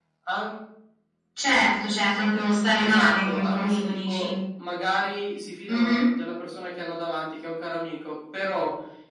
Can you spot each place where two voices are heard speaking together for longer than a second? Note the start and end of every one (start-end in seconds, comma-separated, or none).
2.8-4.3